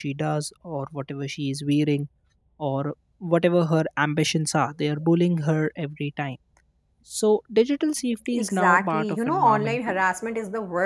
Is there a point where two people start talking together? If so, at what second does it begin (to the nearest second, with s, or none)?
8 s